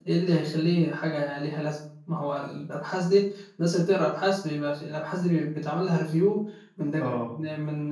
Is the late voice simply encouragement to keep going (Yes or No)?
Yes